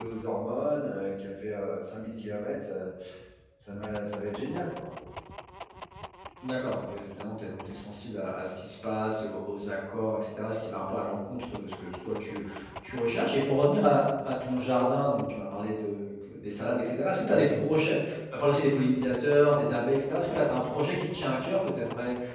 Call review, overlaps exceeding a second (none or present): none